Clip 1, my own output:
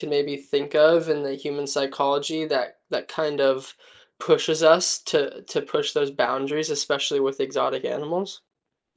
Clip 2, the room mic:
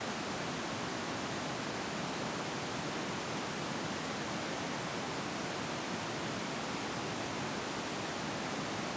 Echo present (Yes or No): No